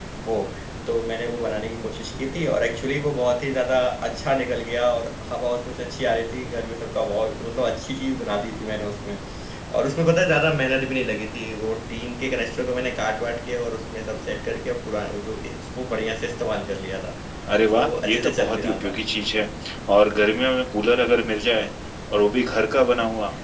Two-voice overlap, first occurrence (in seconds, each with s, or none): 17.7 s